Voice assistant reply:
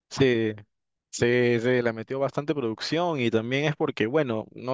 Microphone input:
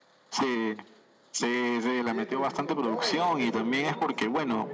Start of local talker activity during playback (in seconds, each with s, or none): 2.0 s